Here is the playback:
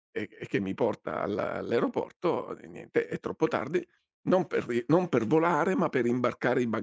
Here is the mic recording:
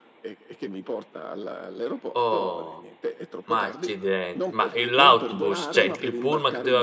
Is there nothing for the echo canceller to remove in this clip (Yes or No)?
No